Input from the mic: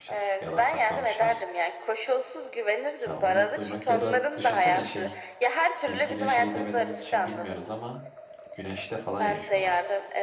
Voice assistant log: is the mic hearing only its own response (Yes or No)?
No